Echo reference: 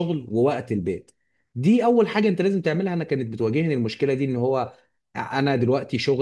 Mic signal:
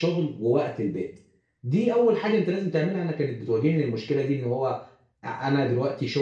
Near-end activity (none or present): none